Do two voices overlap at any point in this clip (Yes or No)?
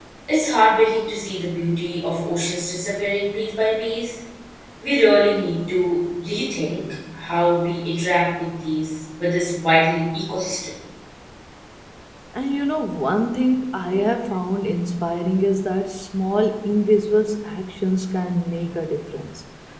No